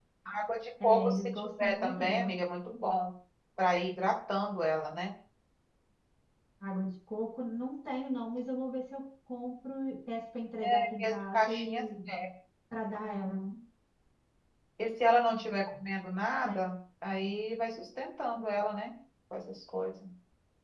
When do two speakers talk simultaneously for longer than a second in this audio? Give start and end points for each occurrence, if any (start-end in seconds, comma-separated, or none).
0.8-2.3, 10.6-11.8